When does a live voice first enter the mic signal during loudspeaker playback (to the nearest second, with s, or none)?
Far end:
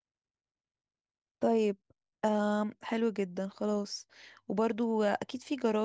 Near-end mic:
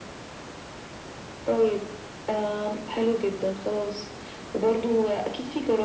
none